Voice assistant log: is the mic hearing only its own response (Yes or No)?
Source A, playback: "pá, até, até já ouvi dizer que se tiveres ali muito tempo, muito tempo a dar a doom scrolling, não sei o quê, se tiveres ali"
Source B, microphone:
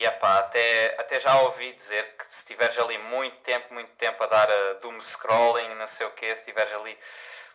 Yes